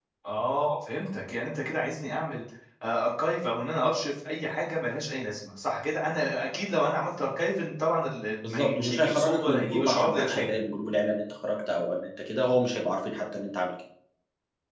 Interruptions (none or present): present